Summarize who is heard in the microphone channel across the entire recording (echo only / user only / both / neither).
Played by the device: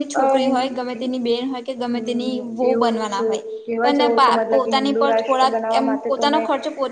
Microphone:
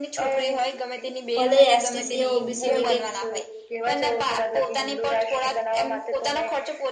both